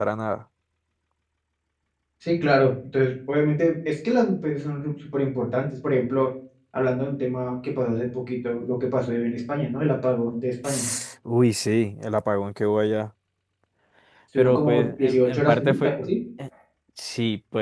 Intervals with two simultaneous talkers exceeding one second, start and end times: 14.4-15.9

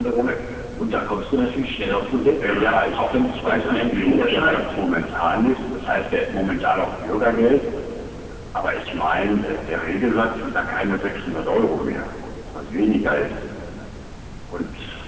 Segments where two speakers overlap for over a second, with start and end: 2.4-4.6

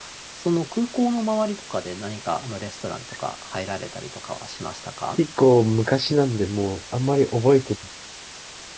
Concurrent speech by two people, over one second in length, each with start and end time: none

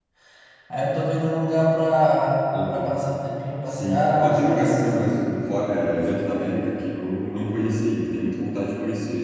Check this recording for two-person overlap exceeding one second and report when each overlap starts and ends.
3.7-5.1

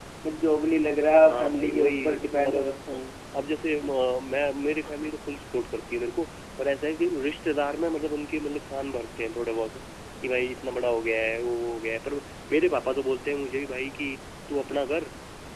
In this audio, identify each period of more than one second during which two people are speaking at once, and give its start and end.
1.3-2.6

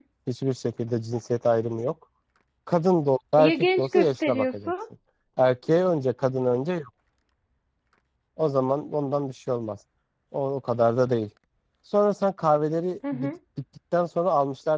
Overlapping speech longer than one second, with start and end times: 3.4-4.7

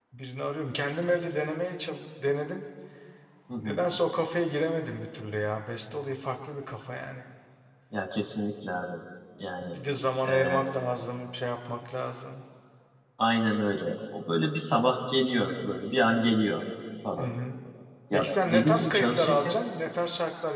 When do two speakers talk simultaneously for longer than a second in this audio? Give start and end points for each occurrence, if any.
18.1-19.6

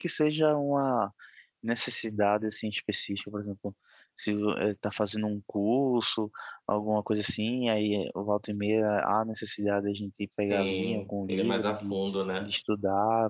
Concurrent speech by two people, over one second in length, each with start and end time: 10.4-12.0

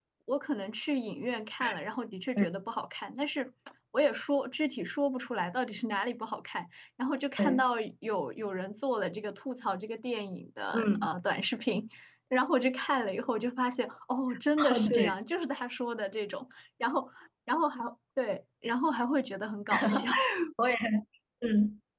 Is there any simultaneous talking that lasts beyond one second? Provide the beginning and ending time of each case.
none

